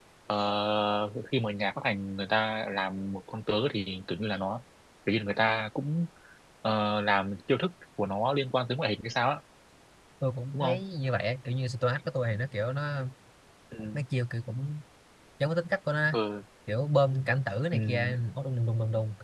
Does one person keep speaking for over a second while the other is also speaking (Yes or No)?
No